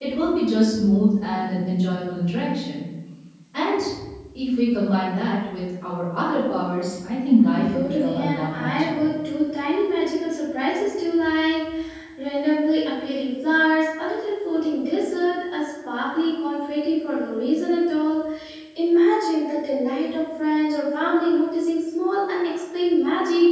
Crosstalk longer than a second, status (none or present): present